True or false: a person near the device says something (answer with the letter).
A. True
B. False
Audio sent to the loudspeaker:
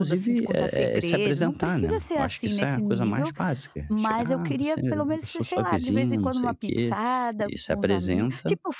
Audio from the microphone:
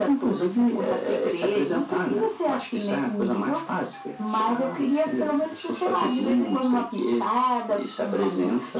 B